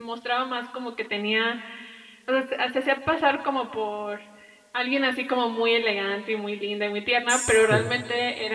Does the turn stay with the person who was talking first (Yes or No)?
Yes